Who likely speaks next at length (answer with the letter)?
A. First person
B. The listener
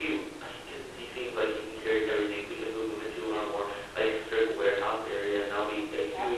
A